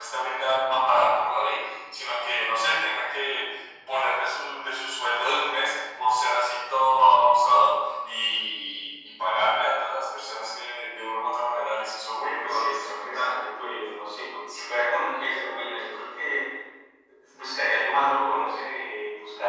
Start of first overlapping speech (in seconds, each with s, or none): 12.2 s